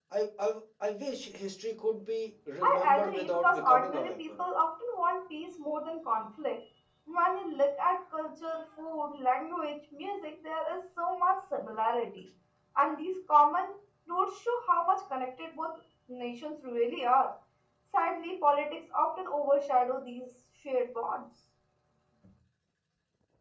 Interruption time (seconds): 2.6 s

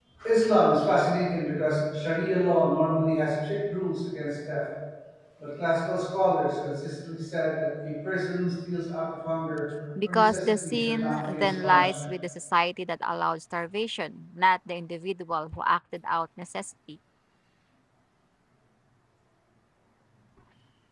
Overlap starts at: 10.0 s

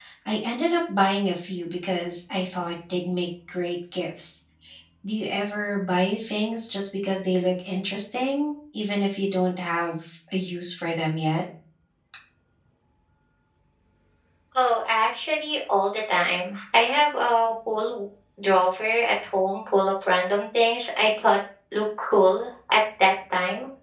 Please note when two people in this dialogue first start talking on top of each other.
none

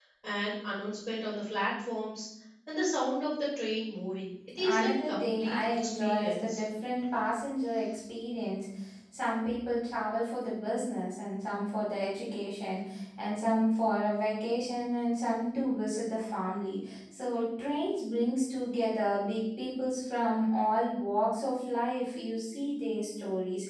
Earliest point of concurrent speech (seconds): 4.6 s

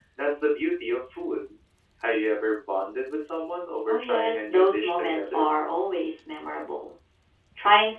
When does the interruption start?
3.9 s

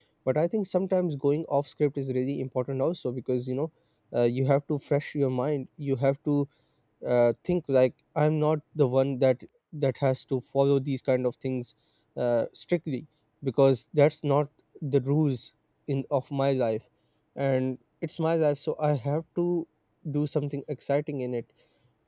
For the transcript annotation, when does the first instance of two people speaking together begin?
none

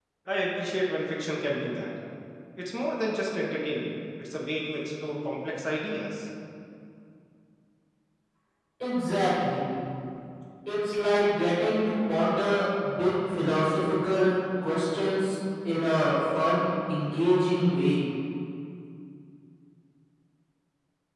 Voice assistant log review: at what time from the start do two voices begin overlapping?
none

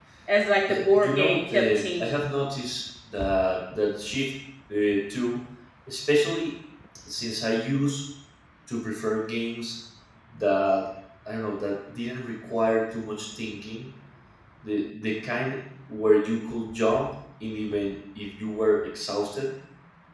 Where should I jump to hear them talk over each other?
0.7 s

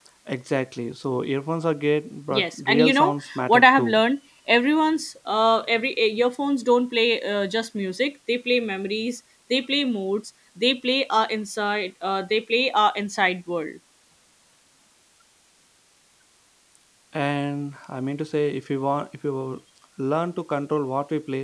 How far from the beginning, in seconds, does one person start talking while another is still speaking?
2.3 s

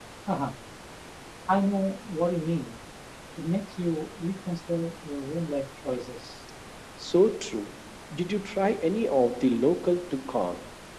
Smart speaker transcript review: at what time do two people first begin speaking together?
none

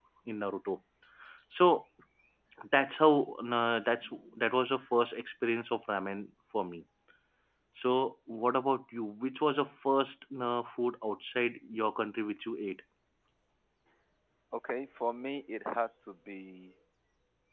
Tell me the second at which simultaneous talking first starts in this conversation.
none

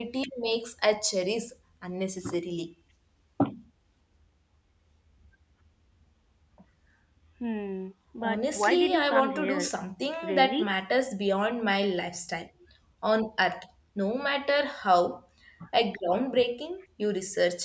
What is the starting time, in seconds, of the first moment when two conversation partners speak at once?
8.2 s

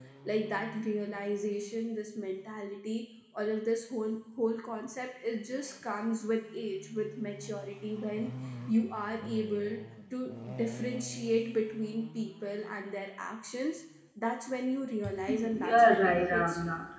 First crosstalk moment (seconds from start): 15.0 s

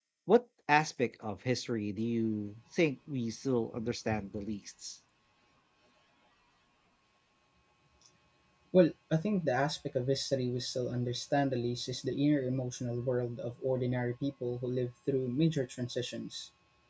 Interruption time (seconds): none

